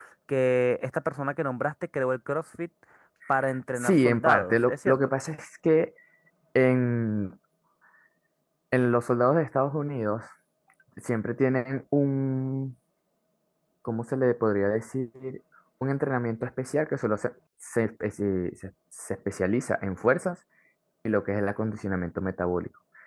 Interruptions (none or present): present